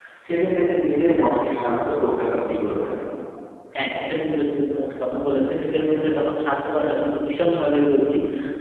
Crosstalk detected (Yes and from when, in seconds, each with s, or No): No